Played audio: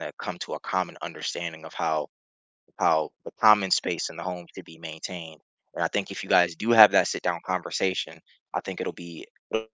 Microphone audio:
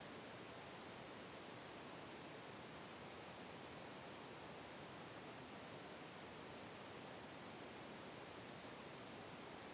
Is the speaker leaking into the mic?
No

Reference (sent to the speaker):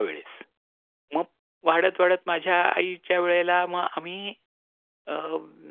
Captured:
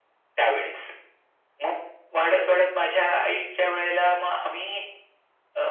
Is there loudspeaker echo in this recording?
Yes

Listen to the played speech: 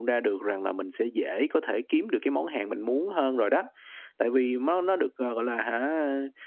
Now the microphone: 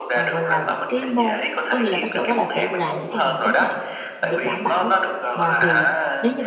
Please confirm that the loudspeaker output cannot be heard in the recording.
No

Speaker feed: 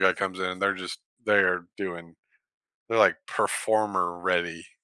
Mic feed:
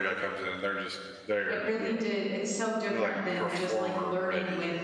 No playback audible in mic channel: No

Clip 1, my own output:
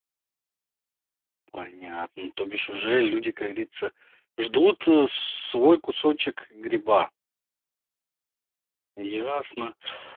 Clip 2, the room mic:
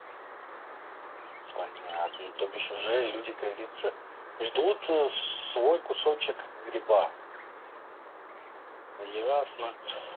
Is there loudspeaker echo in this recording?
Yes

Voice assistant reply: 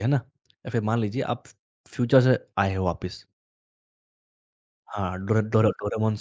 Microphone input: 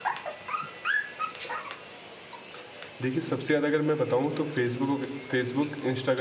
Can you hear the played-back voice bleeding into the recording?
No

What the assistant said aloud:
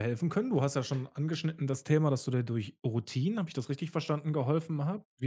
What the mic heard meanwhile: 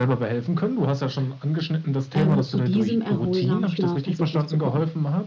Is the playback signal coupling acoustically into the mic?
Yes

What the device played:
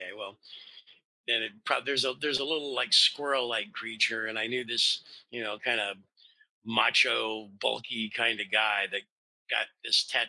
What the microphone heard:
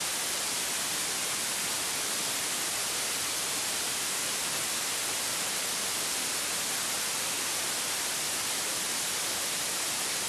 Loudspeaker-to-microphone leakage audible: No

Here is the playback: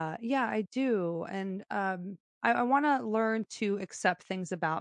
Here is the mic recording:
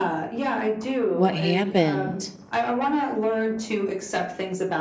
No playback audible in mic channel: No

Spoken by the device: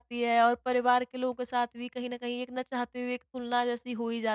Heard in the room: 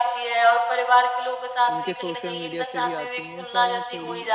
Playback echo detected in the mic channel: Yes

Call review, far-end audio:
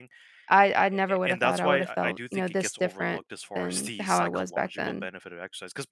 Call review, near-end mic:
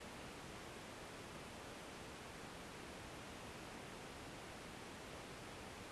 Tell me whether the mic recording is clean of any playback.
Yes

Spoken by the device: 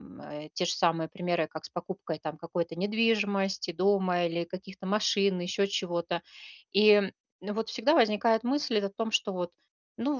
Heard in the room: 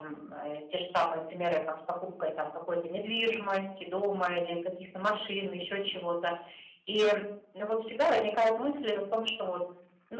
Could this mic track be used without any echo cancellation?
No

